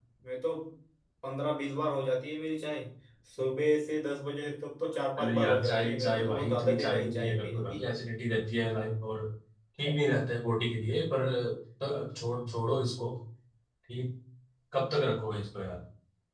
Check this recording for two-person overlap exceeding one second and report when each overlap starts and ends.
5.2-7.8

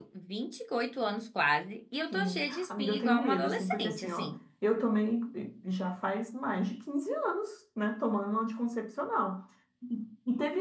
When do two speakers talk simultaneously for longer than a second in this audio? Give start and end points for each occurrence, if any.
2.1-4.3

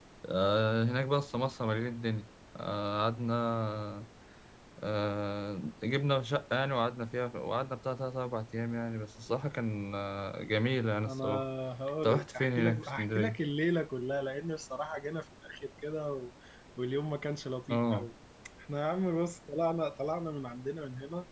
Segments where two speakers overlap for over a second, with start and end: 12.0-13.4

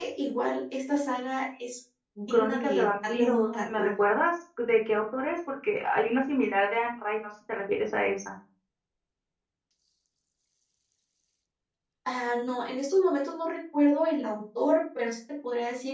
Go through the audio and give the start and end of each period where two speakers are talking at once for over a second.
2.3-3.9

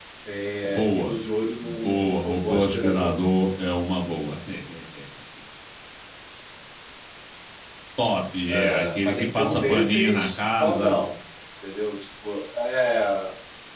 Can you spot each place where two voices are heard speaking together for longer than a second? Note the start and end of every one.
1.6-3.2, 8.5-11.0

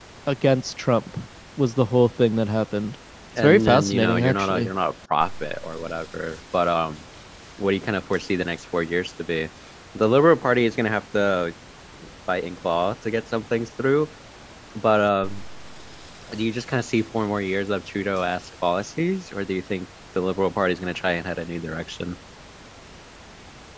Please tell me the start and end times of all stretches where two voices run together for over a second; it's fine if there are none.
3.4-4.7

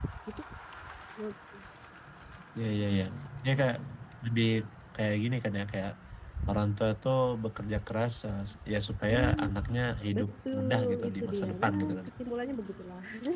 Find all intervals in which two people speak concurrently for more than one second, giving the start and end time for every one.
10.2-12.1

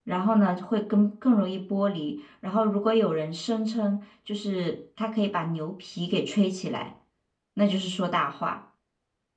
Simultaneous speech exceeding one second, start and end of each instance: none

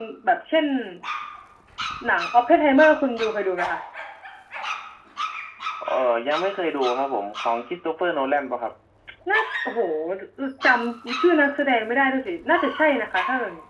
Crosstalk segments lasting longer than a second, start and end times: none

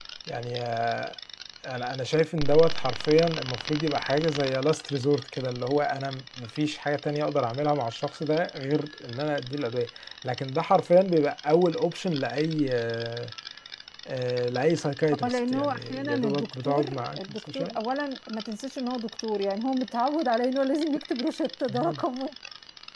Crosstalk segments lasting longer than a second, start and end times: 15.2-17.8

